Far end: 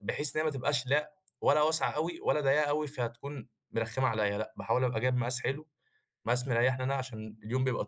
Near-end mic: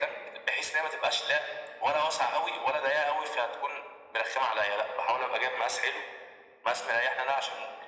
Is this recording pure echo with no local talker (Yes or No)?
Yes